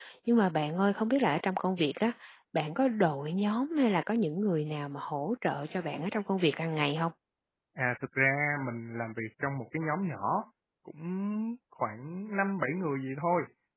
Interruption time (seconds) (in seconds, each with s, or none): none